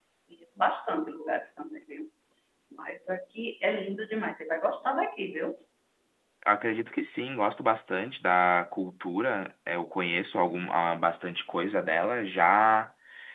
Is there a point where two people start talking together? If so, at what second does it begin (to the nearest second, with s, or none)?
none